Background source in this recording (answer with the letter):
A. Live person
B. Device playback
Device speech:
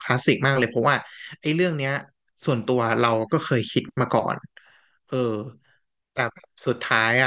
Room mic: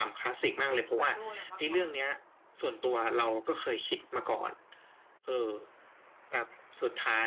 A